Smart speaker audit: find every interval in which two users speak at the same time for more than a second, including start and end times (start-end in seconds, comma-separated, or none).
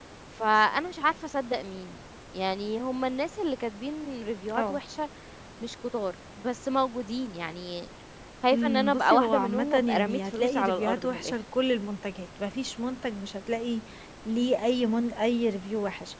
8.5-11.3